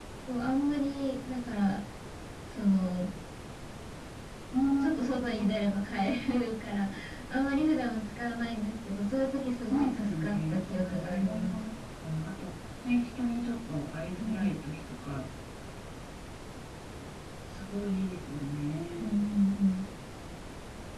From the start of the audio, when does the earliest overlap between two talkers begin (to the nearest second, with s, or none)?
10 s